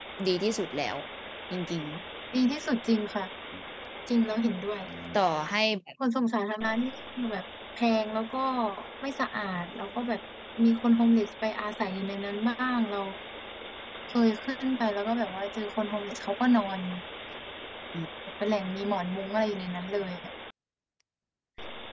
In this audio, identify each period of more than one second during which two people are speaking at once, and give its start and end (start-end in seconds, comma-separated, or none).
none